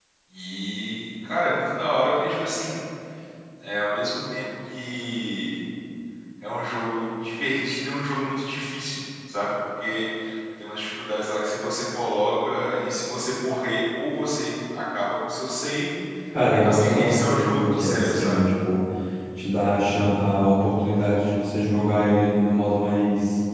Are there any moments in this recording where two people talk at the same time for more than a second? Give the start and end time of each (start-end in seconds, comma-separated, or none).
16.5-18.4